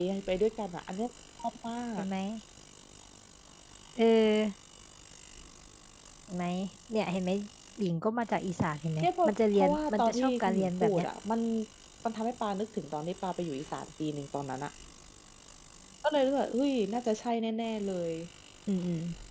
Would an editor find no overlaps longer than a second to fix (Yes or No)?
No